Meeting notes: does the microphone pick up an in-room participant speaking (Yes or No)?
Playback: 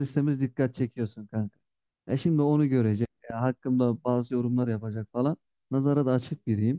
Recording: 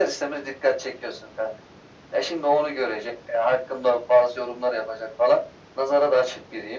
No